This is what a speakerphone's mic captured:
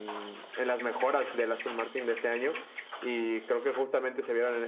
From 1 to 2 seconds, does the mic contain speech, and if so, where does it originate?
echo only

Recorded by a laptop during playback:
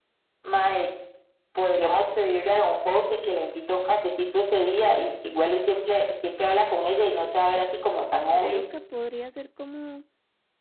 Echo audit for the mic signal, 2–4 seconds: echo only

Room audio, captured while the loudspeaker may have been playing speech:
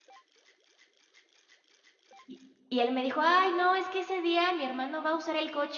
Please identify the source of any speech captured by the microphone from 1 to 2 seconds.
neither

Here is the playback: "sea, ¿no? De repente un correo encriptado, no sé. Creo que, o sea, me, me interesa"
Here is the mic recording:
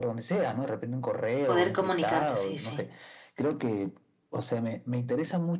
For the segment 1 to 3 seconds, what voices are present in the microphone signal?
both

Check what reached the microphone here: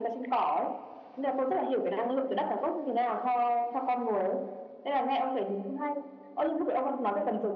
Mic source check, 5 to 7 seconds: echo only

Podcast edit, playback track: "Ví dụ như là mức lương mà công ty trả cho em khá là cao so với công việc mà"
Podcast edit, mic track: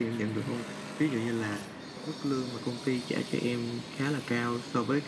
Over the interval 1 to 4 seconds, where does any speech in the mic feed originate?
echo only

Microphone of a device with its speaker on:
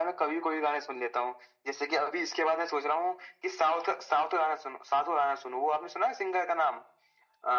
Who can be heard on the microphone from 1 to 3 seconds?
echo only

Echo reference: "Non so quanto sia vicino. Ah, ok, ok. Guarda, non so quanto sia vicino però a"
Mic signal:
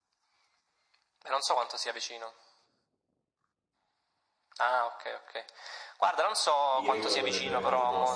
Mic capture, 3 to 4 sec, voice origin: neither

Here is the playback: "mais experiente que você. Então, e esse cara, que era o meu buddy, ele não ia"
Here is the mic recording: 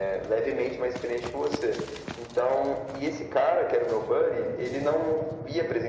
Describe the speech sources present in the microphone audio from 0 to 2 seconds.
echo only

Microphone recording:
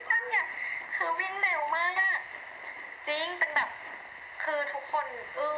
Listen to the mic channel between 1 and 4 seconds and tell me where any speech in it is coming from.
echo only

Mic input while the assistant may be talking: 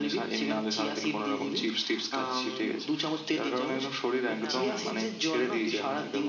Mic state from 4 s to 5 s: both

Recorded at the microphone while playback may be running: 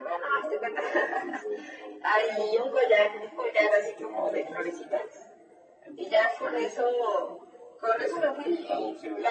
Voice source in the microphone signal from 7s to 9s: echo only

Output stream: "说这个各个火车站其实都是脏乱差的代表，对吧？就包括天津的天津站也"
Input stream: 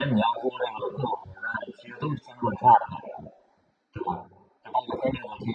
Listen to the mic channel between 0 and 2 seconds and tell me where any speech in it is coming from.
echo only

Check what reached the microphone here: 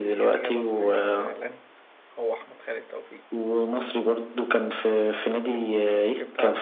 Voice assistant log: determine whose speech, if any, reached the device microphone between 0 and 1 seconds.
both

